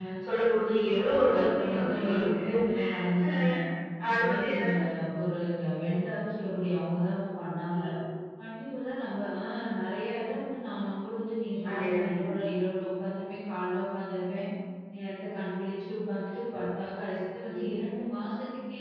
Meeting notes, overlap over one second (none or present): present